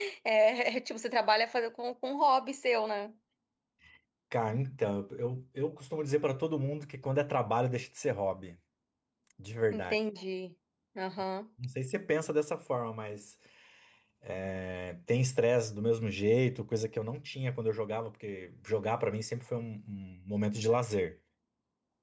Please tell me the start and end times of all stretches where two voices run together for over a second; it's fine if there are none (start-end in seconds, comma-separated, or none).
none